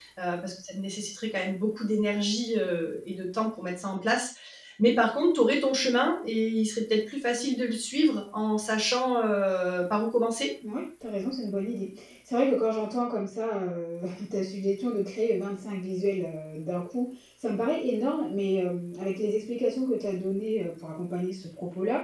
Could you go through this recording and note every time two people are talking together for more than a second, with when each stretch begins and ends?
none

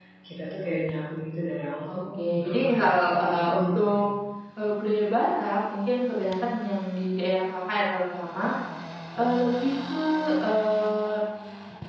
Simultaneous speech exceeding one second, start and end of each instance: 1.9-4.0

